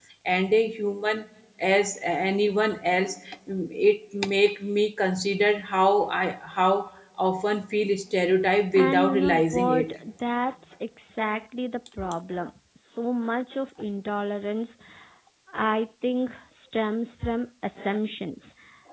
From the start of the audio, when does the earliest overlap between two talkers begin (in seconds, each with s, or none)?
8.7 s